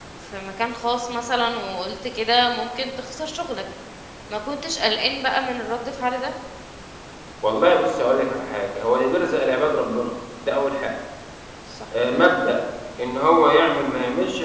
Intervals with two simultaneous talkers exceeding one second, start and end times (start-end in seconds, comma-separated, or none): none